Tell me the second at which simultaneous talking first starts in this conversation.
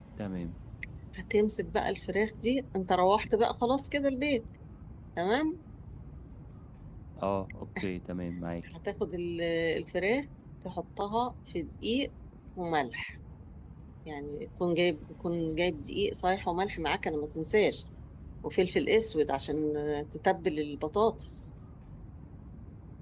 none

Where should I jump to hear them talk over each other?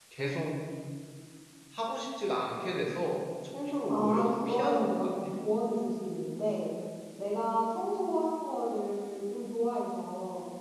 3.9 s

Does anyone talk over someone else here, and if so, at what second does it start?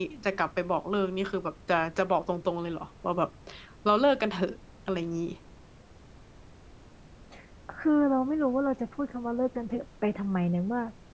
none

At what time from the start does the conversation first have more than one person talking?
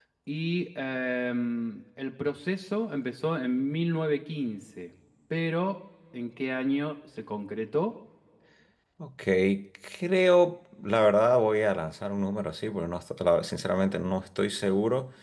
none

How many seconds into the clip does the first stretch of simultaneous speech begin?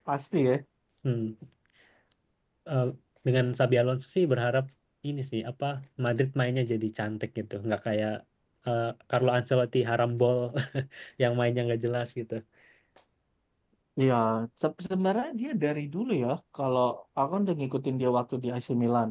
none

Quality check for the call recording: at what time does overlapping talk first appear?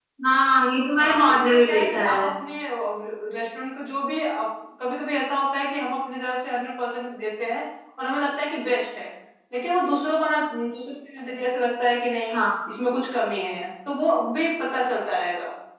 1.0 s

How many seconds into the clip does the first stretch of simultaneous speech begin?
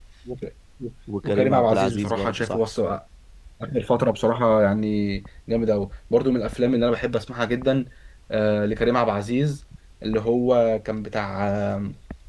1.2 s

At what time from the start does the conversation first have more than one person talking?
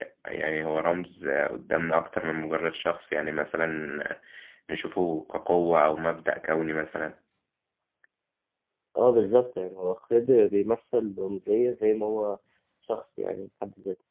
none

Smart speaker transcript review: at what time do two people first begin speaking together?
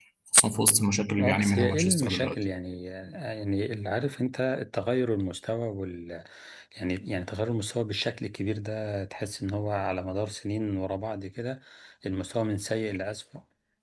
1.2 s

